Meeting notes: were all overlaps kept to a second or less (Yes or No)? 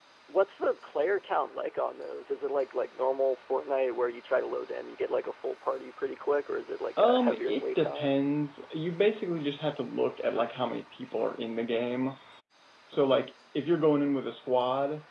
No